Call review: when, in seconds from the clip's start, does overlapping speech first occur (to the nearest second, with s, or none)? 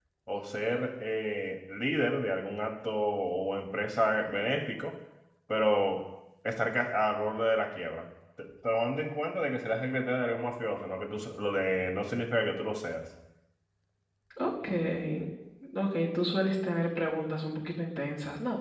none